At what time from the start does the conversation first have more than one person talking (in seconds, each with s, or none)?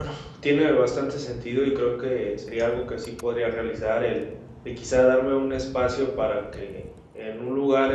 none